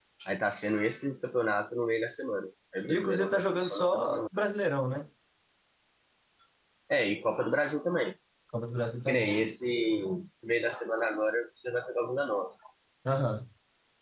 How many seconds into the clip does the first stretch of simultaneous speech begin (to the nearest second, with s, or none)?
3 s